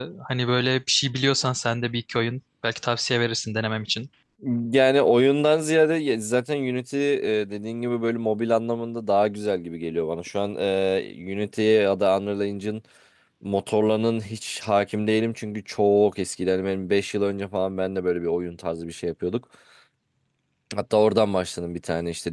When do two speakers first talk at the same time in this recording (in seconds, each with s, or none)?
none